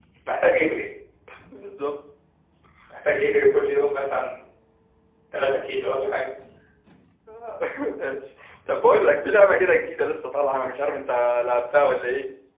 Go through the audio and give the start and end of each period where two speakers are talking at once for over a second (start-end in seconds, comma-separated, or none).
none